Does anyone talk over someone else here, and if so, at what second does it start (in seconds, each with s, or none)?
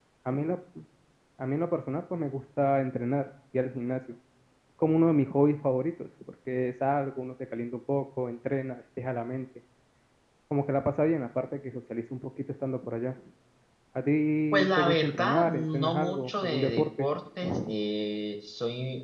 14.5 s